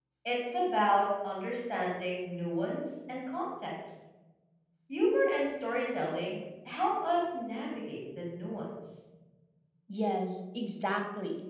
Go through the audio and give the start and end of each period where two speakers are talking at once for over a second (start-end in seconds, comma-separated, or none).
none